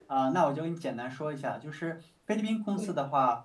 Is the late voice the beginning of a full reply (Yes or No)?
No